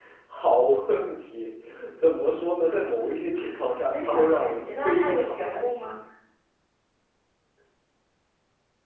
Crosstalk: present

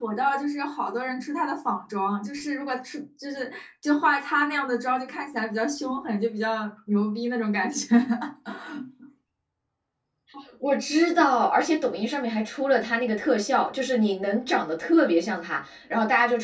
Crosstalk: none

